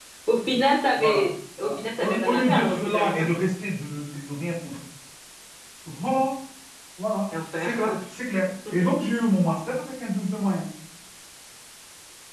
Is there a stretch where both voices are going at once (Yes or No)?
Yes